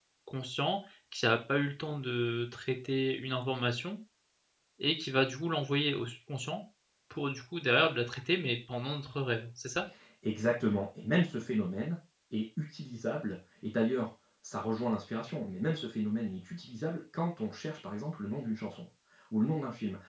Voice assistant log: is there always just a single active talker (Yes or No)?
Yes